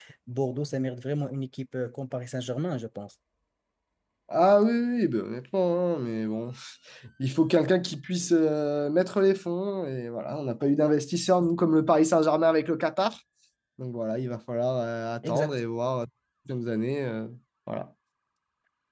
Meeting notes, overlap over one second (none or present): none